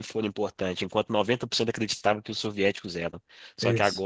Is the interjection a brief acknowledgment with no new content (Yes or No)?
Yes